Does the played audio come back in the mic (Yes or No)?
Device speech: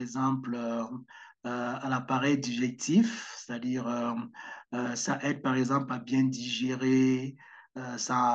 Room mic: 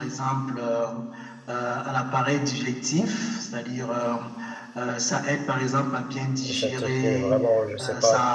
Yes